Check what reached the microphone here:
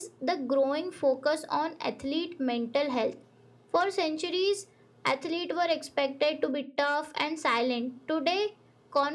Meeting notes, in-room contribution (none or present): none